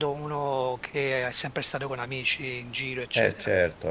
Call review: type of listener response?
taking over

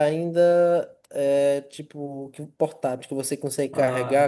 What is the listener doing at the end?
listening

